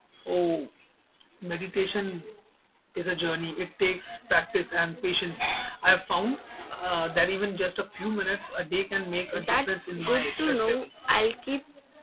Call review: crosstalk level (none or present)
present